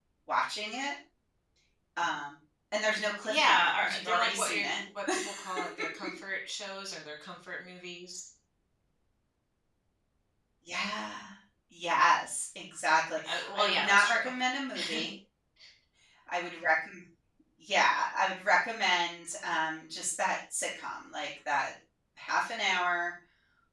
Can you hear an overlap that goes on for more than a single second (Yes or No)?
Yes